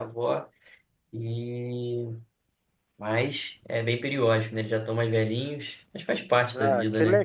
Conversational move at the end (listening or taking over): taking over